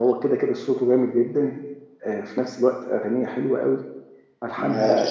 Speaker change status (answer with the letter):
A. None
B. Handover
A